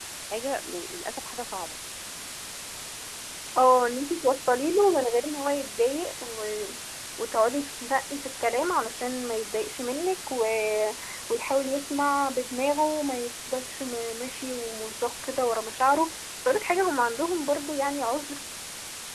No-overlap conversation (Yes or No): Yes